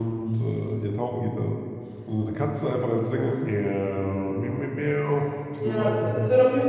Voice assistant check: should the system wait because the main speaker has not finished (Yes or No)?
No